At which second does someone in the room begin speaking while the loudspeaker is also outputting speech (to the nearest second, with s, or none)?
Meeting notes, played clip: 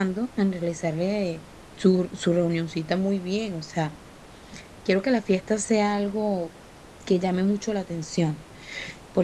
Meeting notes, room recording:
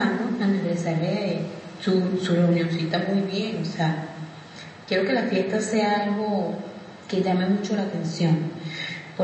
none